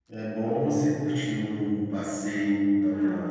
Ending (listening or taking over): listening